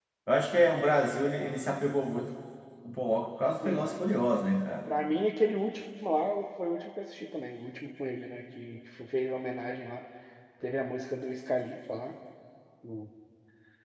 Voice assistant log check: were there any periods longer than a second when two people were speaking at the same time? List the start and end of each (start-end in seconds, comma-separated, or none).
none